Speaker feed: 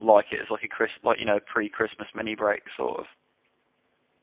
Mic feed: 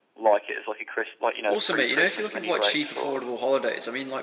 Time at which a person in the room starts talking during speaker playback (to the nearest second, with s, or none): 1 s